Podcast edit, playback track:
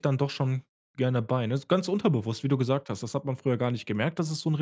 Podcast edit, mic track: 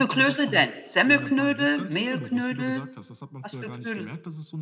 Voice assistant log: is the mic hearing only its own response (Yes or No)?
No